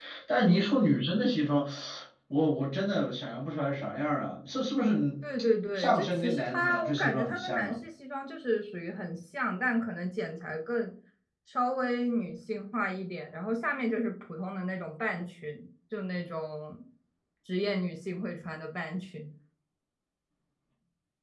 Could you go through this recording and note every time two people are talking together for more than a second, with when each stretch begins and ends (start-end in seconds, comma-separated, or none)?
5.7-7.8